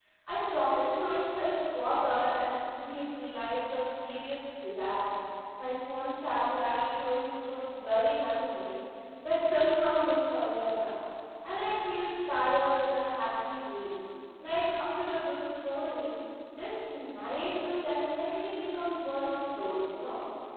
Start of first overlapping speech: none

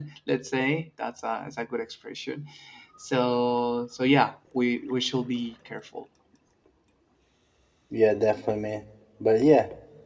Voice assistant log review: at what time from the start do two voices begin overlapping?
none

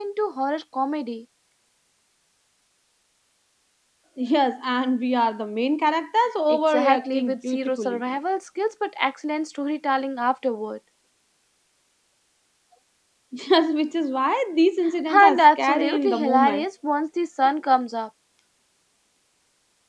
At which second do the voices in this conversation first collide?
6.5 s

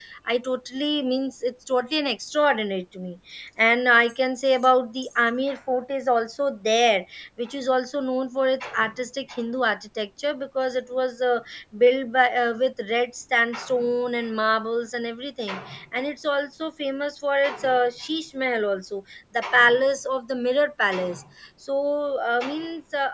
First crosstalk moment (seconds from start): none

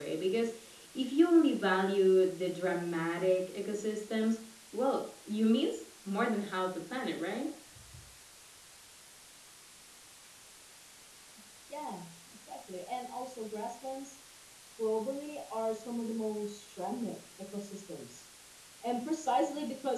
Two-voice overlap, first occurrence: none

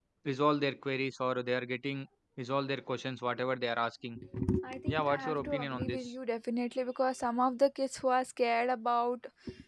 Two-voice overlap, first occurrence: 4.9 s

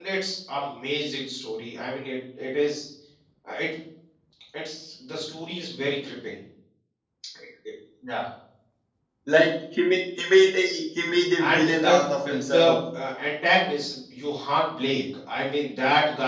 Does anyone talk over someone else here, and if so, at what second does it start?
11.4 s

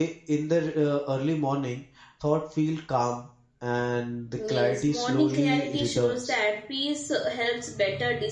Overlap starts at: 4.4 s

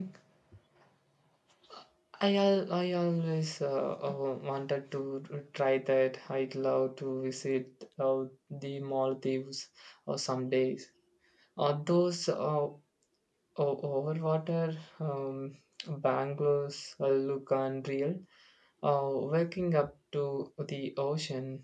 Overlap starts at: none

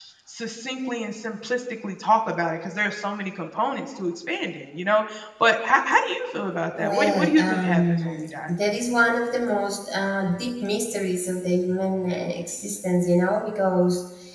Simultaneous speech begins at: 6.8 s

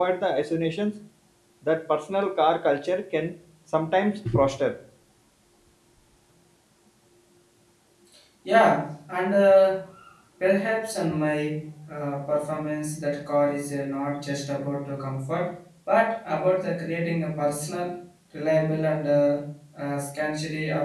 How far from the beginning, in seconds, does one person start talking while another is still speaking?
none

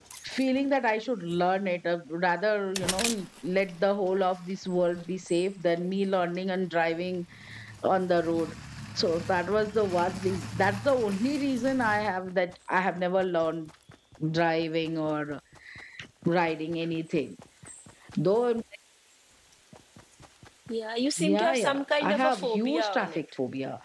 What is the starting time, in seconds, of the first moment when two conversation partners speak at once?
21.2 s

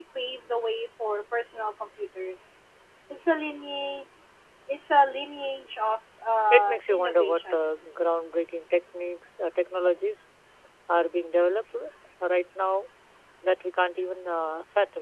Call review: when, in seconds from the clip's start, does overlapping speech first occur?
6.5 s

